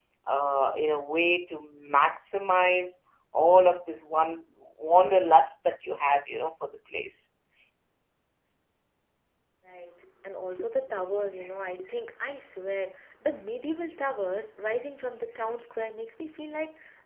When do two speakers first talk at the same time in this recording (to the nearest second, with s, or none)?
none